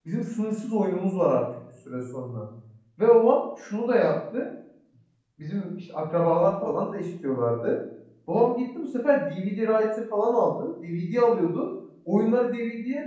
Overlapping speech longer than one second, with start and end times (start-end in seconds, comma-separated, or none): none